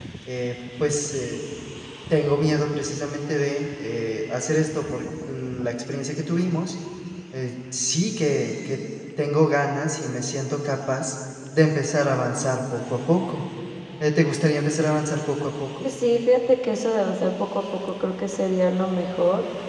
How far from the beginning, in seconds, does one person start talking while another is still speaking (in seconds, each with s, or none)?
none